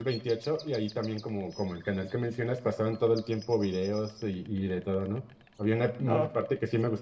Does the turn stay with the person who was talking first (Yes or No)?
Yes